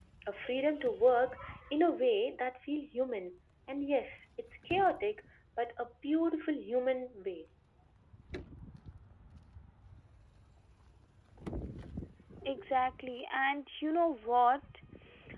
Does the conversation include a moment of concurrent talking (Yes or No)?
No